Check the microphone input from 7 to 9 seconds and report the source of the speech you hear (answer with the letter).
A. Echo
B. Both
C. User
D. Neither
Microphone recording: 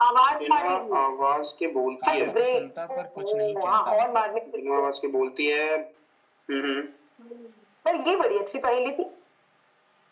A